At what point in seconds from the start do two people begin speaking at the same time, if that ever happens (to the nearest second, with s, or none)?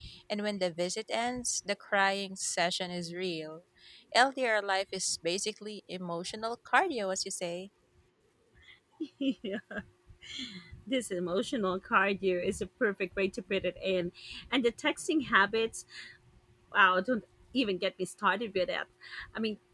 none